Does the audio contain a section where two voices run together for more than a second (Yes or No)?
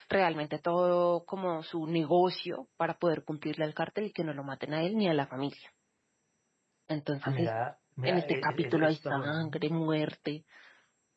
Yes